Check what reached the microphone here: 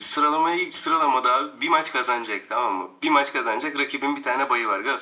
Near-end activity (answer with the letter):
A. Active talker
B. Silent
B